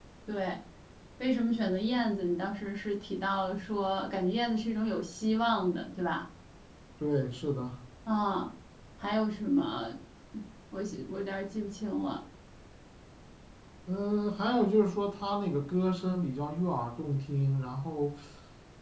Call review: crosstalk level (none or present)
none